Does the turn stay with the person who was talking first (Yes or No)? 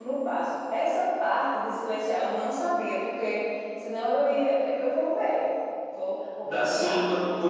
No